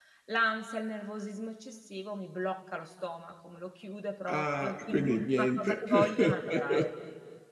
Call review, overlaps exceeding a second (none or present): present